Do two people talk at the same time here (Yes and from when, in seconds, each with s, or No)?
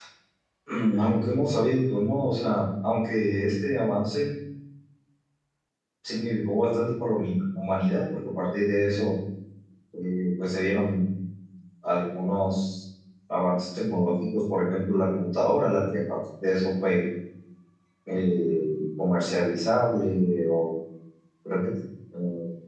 No